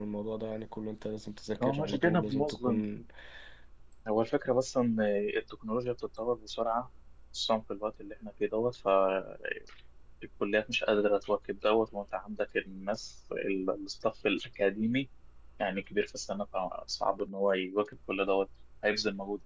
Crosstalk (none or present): present